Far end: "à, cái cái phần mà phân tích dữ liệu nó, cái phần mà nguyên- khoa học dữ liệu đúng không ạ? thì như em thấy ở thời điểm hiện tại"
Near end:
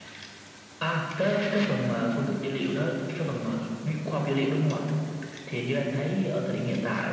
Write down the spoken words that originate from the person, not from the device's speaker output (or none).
none